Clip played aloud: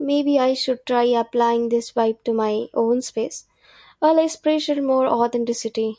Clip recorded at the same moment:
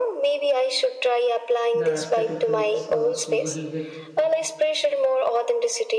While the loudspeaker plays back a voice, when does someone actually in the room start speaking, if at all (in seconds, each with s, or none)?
1.7 s